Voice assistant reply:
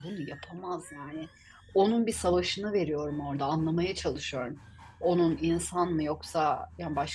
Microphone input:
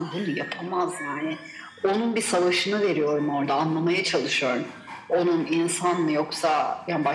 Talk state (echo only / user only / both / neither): echo only